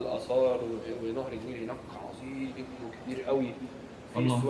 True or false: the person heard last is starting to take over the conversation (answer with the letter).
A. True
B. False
B